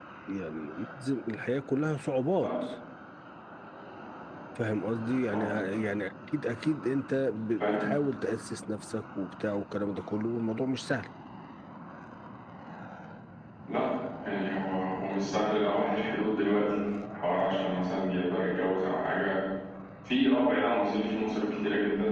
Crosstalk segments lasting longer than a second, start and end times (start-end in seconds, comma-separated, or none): none